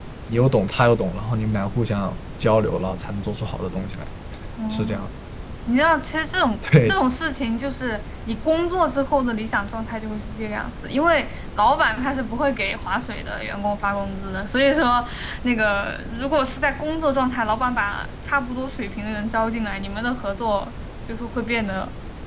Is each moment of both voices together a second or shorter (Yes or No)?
Yes